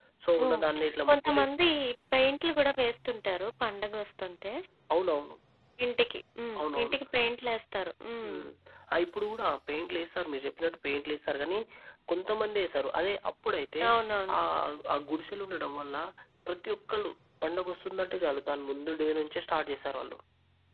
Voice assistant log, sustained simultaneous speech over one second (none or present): none